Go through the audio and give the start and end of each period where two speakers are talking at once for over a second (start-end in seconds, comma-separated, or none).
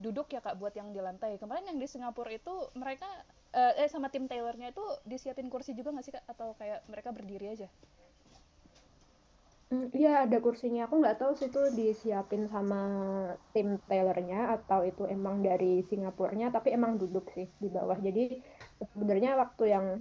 none